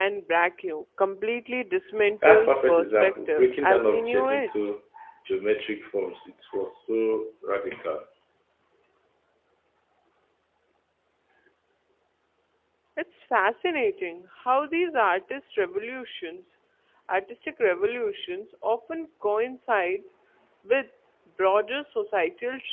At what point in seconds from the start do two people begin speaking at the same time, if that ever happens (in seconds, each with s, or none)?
2.2 s